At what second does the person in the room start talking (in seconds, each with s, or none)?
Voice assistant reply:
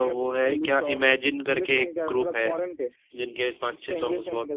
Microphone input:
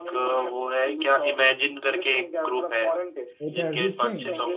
3.5 s